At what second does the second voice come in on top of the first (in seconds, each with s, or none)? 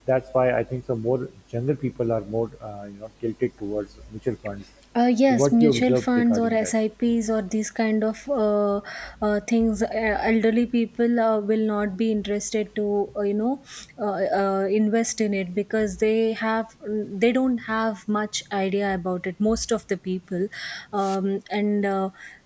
5.3 s